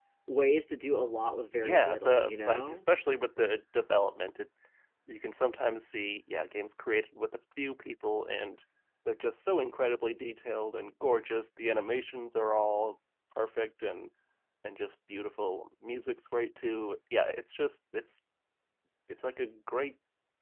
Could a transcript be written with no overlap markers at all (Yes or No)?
No